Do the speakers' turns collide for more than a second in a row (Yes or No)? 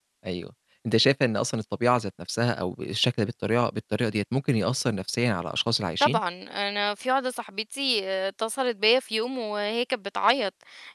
No